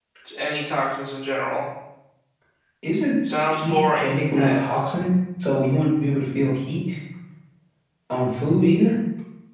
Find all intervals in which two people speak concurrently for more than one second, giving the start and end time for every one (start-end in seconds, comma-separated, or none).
3.5-4.8